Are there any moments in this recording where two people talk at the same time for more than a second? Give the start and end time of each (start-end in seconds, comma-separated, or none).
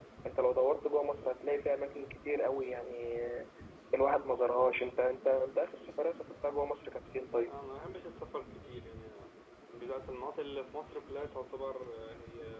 none